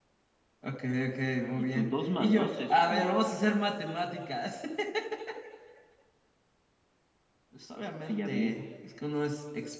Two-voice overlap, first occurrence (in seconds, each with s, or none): 1.6 s